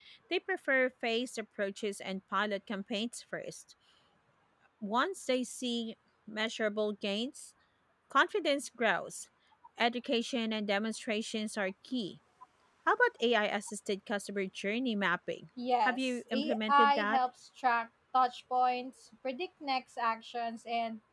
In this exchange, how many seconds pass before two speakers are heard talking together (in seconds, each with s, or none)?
15.8 s